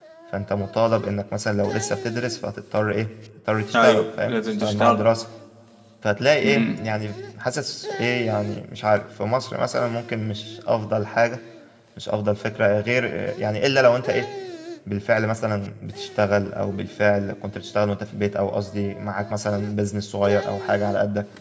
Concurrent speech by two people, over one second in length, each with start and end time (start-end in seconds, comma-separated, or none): 3.7-5.0